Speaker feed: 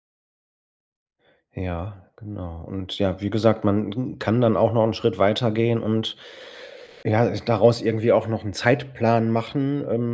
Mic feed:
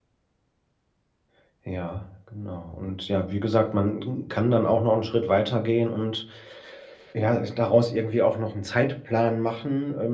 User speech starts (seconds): none

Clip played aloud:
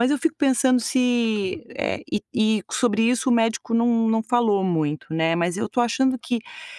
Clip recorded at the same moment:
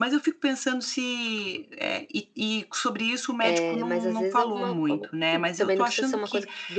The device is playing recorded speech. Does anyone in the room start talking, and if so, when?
3.4 s

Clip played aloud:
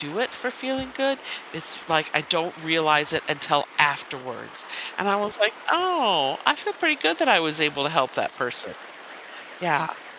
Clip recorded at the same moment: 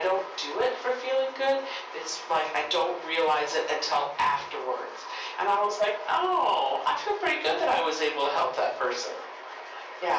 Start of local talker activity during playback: none

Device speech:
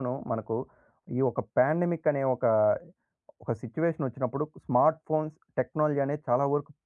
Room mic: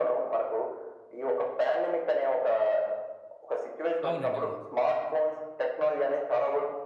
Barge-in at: 4.1 s

